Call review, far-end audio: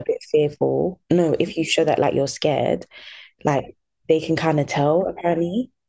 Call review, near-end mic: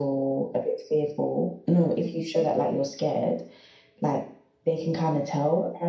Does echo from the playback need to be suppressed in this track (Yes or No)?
Yes